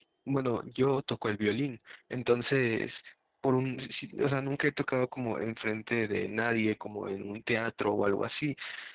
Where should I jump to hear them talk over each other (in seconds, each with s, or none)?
none